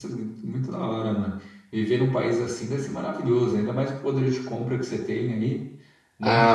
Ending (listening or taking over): taking over